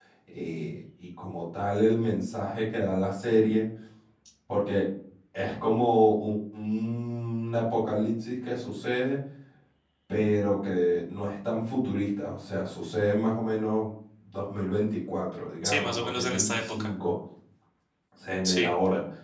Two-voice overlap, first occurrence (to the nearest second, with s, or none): 16 s